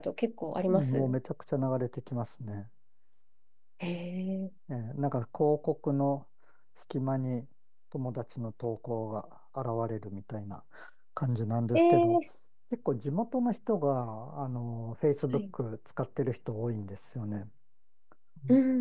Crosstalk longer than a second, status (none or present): none